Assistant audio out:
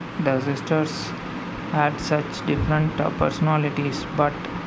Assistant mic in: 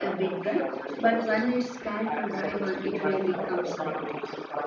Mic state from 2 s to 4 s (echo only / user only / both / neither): both